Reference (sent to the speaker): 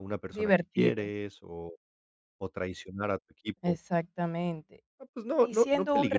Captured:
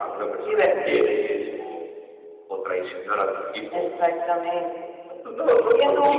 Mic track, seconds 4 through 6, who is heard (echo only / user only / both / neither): echo only